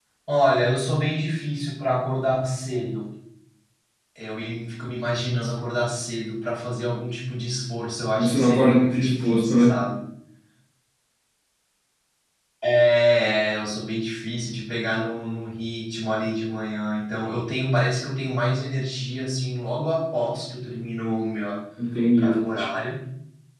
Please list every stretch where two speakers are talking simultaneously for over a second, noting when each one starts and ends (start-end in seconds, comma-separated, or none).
8.2-9.7